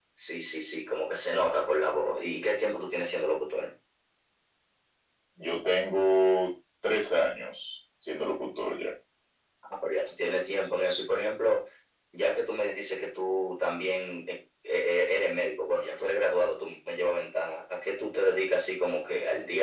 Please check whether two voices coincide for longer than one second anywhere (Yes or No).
No